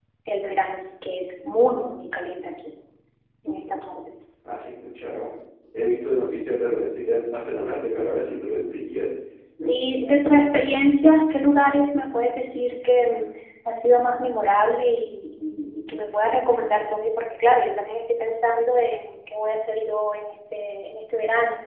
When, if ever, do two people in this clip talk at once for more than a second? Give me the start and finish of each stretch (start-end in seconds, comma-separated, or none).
none